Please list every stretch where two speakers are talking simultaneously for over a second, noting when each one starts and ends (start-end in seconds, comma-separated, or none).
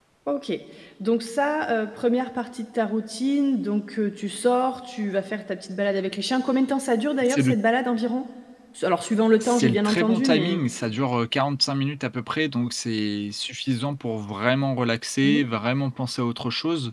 9.4-10.6